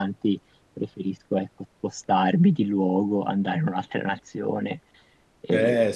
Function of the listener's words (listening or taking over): taking over